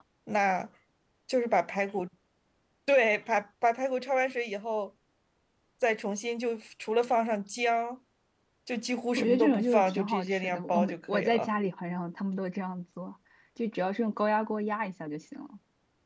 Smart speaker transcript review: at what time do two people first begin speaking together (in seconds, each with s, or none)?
9.2 s